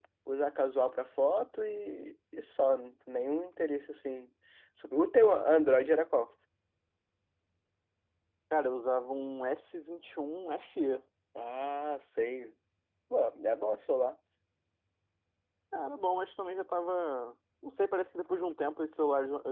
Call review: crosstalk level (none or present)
none